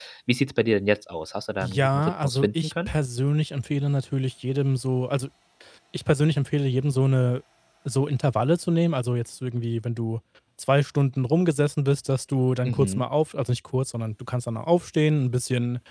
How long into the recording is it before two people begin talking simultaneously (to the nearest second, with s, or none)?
2 s